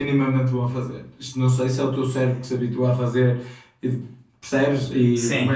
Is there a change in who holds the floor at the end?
No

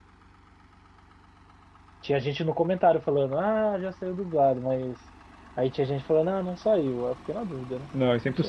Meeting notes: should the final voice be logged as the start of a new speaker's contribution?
Yes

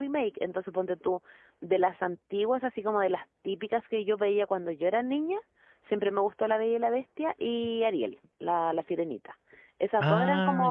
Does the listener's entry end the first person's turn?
No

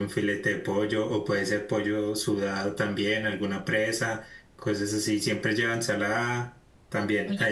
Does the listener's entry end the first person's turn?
Yes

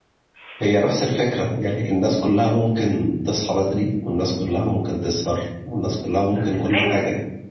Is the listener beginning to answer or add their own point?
Yes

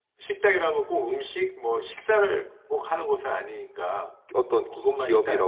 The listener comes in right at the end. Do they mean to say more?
Yes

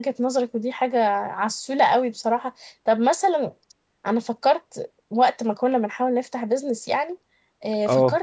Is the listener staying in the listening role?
Yes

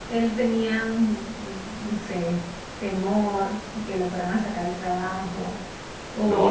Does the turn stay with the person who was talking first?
Yes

